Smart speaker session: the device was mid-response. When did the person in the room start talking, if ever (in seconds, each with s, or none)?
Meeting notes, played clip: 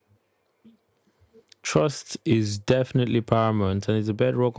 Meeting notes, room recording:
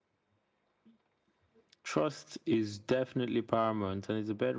none